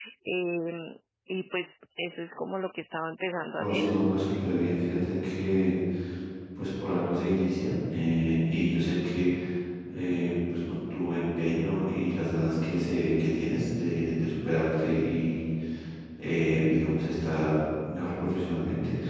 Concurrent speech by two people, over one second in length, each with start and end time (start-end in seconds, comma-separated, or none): none